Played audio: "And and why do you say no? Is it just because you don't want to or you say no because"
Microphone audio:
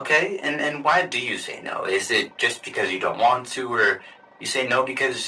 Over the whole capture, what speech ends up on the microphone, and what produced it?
echo only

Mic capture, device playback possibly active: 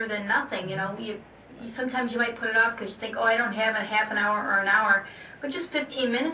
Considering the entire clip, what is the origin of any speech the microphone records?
both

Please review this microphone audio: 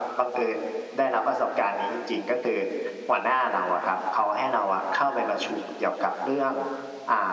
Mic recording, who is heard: echo only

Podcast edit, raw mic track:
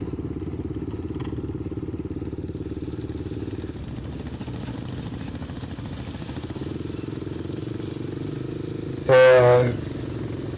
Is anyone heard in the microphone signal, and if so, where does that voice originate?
user only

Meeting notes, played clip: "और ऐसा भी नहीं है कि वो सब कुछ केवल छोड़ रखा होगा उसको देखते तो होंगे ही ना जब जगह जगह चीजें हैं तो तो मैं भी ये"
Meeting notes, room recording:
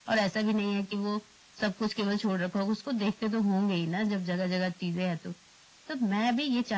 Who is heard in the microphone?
echo only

